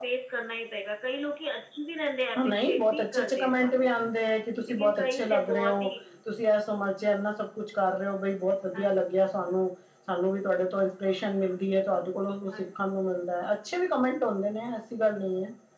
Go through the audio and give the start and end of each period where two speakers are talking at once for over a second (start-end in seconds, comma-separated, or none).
2.4-3.9, 4.7-5.9